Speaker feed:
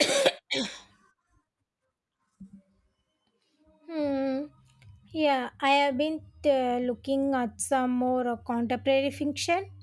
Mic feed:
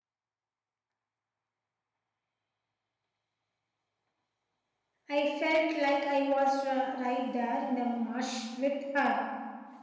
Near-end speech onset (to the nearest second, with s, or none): 5 s